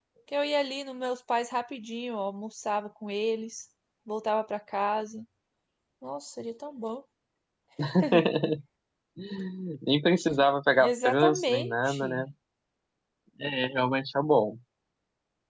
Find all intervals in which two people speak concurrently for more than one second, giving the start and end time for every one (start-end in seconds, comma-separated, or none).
10.9-12.2